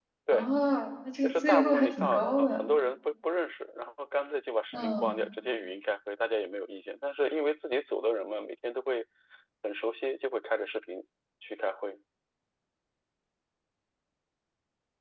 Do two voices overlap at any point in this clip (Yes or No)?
Yes